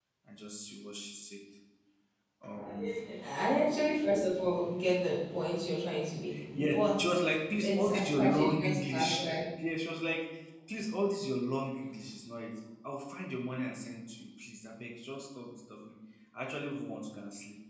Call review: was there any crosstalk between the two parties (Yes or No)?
Yes